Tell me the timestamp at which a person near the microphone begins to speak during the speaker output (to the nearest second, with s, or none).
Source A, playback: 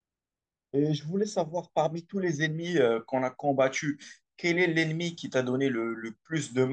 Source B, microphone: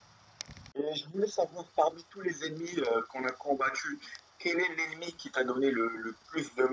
none